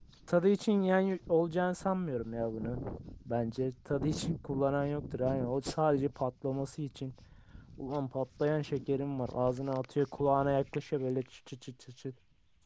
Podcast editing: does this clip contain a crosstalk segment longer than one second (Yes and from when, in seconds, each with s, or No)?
No